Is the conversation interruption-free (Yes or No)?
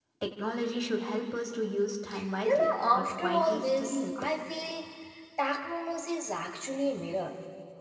No